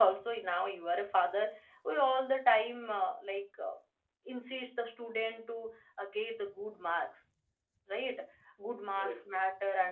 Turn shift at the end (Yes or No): No